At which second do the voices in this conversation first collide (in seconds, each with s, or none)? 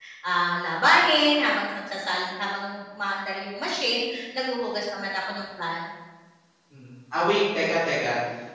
none